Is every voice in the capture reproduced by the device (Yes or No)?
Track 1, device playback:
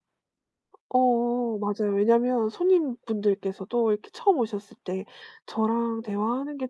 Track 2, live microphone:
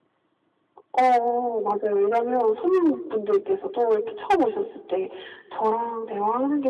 Yes